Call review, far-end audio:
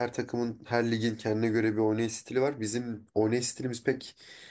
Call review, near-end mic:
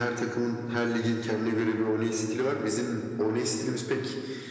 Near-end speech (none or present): none